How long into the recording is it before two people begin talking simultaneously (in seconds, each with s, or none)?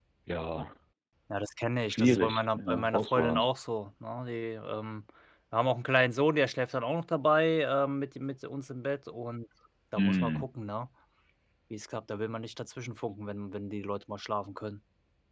1.9 s